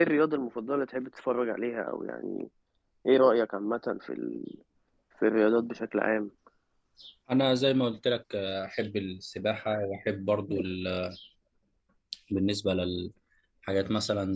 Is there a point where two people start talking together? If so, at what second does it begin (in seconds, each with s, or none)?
none